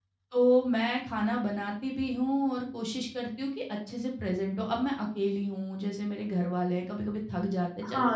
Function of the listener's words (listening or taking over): taking over